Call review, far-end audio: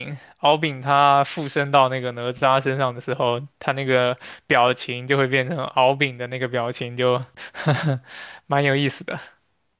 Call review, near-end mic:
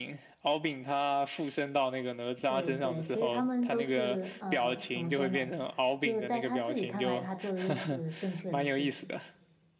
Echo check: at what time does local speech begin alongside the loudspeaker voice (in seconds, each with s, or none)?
2.4 s